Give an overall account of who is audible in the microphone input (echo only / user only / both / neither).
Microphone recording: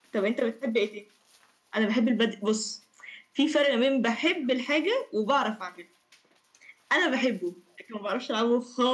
echo only